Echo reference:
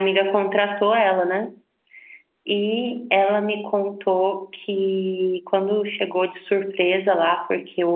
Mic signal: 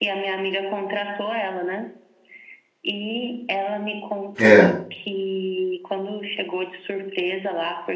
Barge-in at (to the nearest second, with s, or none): 4 s